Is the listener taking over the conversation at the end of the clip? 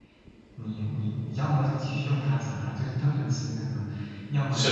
No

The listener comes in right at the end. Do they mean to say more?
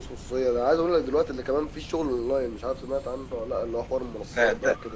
Yes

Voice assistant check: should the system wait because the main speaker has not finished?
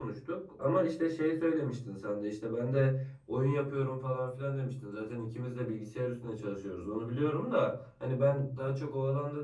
Yes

